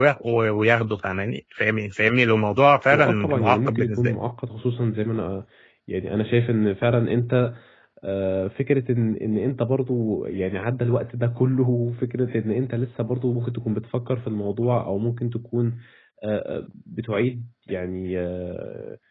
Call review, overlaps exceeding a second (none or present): present